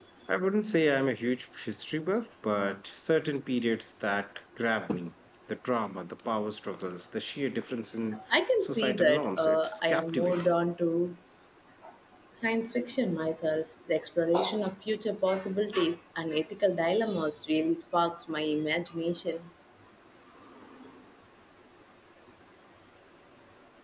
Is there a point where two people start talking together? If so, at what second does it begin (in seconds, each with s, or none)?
8.1 s